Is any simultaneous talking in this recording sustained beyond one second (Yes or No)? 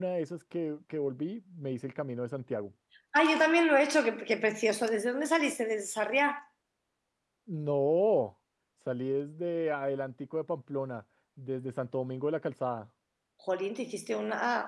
No